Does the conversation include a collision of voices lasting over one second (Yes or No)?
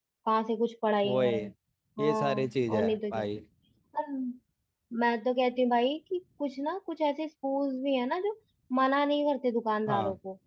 Yes